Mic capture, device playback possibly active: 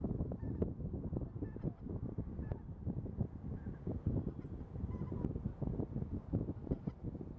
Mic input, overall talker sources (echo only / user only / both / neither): neither